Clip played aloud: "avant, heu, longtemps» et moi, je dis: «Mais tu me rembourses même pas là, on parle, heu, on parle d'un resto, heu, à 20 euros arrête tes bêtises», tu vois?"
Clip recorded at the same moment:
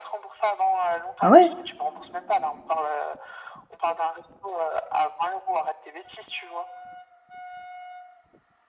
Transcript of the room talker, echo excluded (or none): Ah ouais?